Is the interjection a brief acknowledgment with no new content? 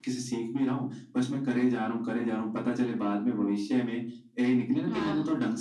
Yes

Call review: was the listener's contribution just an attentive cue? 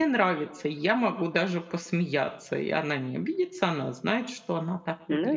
No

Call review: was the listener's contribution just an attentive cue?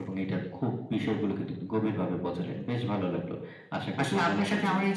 No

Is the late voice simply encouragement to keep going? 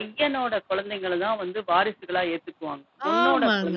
No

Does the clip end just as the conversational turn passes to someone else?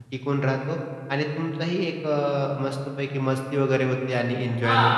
Yes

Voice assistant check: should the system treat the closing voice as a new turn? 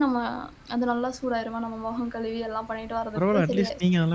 Yes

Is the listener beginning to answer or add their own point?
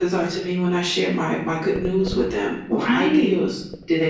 Yes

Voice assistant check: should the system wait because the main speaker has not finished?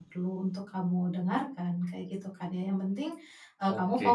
Yes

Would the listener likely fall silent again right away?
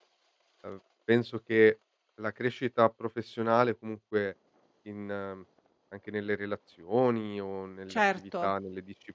Yes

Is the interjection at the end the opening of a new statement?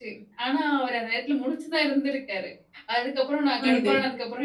No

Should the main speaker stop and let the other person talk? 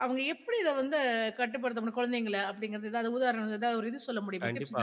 Yes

